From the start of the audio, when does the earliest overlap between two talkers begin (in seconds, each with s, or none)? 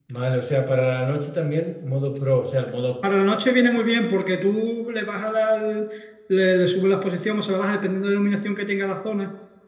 none